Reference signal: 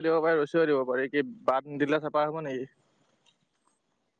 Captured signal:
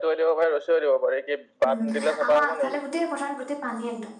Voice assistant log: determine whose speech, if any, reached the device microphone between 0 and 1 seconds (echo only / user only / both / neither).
echo only